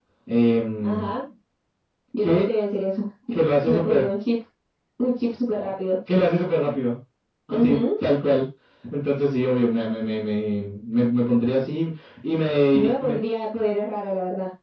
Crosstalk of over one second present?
No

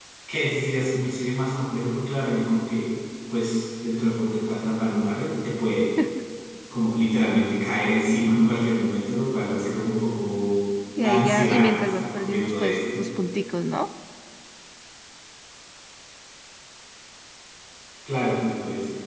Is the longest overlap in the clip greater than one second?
Yes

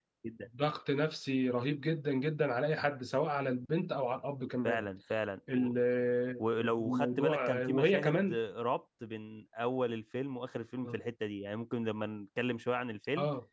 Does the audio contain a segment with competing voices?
Yes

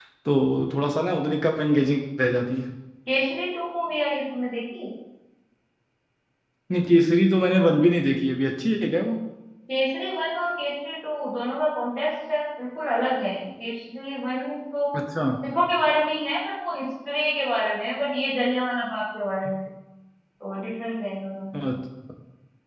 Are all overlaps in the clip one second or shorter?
Yes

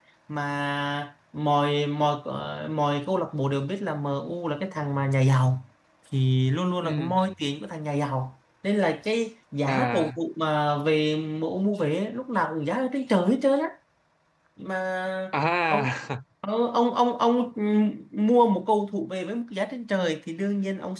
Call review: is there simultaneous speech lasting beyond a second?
No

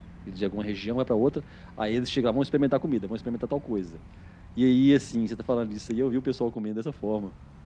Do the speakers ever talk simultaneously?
No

